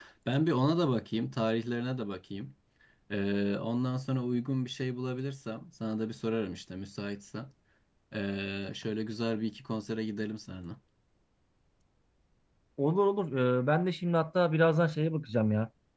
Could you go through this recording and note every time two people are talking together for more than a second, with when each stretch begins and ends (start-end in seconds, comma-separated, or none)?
none